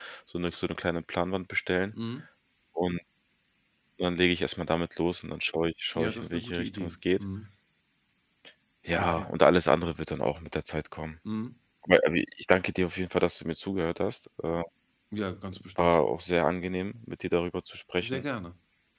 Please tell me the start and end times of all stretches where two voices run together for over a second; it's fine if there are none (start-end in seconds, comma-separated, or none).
6.0-7.2